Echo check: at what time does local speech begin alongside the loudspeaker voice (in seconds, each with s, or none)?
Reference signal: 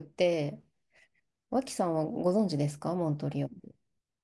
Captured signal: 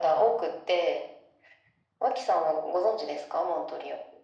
none